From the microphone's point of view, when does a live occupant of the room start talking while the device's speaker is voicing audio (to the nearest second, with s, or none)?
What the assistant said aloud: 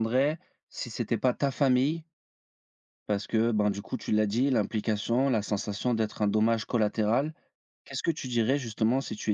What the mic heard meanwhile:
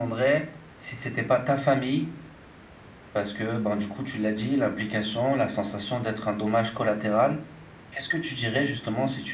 none